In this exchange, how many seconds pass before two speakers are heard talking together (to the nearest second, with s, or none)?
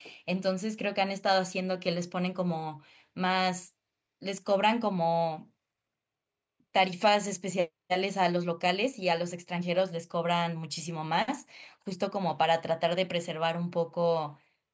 none